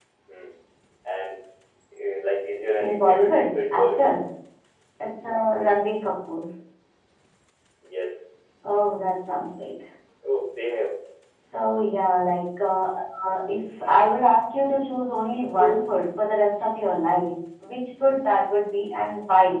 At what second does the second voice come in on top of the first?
3 s

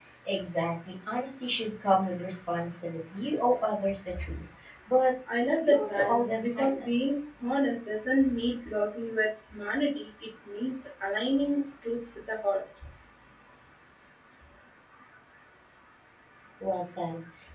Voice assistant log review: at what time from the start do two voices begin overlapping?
6 s

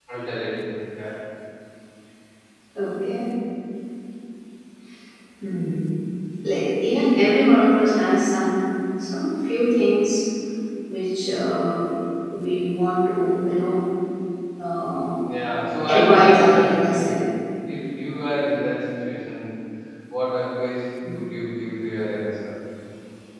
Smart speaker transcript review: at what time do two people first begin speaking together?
16 s

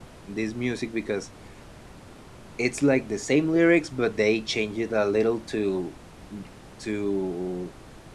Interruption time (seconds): none

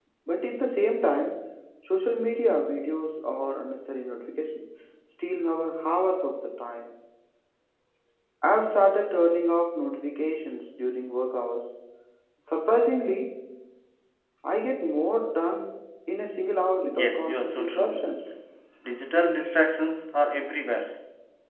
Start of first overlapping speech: 17 s

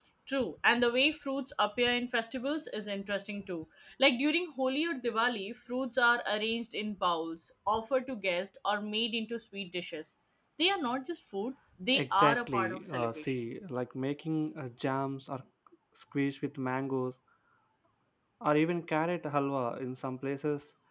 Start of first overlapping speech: 12 s

